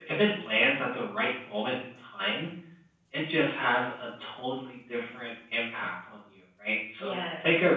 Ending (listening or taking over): listening